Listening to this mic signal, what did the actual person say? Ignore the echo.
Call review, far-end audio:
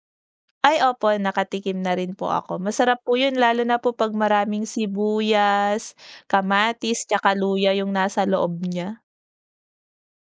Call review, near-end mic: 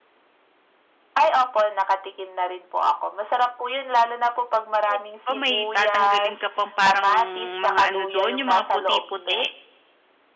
Eh, 'di ba may tatanggalin ka pang parang mga ano dun, yung mga puti-puti.

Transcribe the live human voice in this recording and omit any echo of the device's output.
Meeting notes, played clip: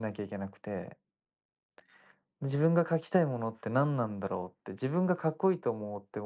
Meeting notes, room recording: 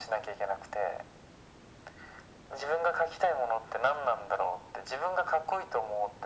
none

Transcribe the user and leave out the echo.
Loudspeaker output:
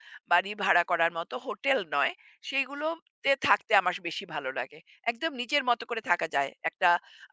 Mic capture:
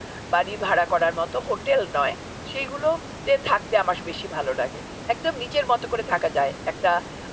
none

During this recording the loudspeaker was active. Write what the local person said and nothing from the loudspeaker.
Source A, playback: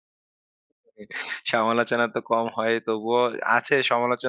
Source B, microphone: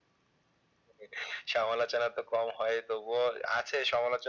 none

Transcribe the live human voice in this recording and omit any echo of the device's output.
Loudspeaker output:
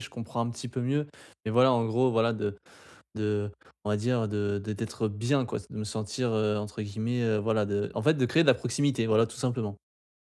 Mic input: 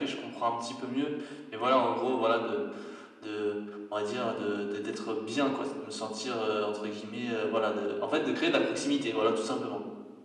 none

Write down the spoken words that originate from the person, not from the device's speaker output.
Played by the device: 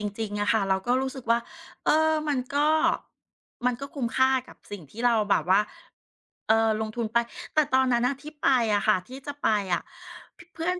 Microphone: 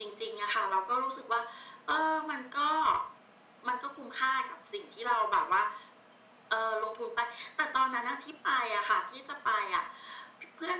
none

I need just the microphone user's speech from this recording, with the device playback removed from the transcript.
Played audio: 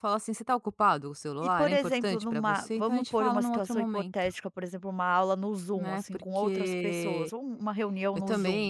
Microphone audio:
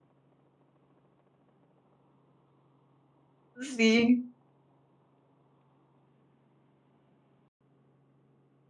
Sim.

